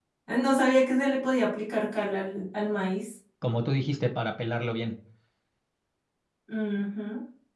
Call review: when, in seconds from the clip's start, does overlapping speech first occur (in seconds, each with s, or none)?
none